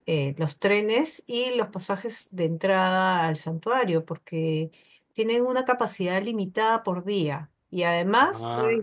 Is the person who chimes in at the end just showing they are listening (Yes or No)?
Yes